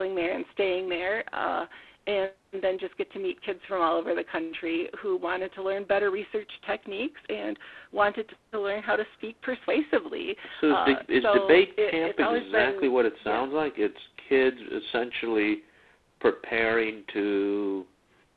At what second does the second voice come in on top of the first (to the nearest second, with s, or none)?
11 s